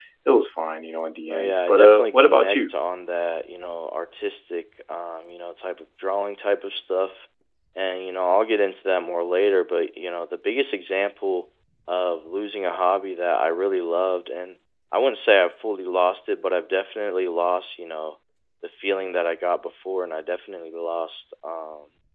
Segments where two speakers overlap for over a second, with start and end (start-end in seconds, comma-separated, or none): 1.3-2.7